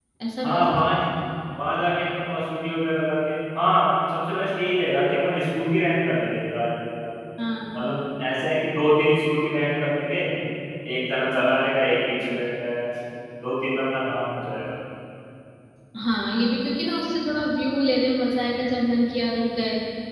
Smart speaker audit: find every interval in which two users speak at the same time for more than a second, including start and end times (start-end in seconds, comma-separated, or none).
none